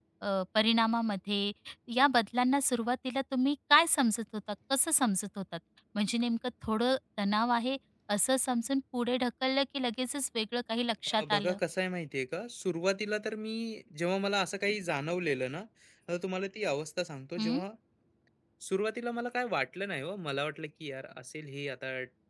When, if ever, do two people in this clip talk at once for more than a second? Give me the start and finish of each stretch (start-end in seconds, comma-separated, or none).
none